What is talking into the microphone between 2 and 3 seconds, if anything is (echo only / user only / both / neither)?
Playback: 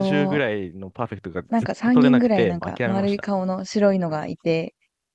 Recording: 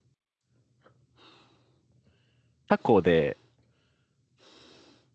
user only